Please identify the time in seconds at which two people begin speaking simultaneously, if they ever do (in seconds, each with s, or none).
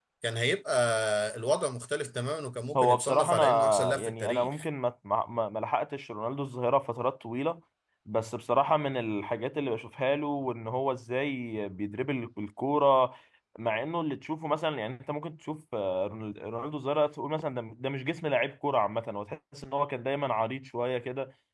2.7 s